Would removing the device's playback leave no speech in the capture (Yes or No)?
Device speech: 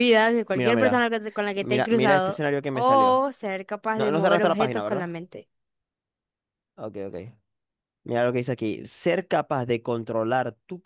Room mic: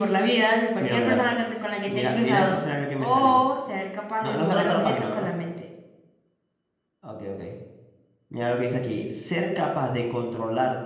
Yes